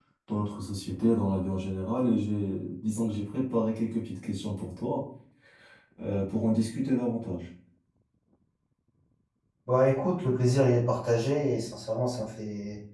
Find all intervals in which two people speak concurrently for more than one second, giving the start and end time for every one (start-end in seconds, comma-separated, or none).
none